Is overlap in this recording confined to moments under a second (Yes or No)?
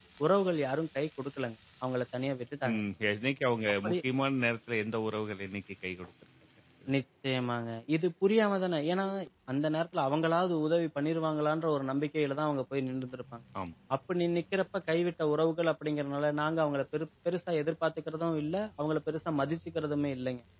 Yes